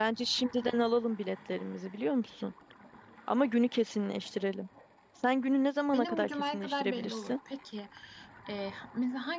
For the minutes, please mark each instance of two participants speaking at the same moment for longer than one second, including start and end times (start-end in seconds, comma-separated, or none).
5.9-7.3